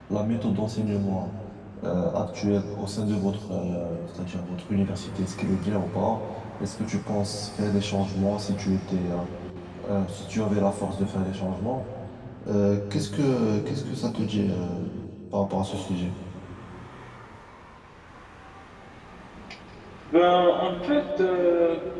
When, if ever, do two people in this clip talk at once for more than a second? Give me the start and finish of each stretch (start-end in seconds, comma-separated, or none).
none